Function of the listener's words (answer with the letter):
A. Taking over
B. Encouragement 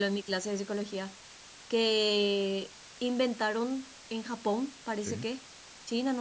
B